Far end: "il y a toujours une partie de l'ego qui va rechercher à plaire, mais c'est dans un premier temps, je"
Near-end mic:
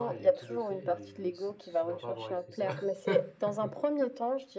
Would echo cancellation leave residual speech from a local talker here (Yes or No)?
Yes